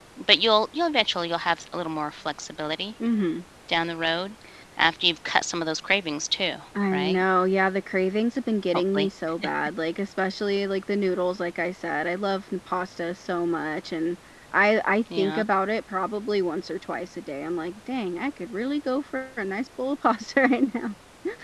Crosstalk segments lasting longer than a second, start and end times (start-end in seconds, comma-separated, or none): none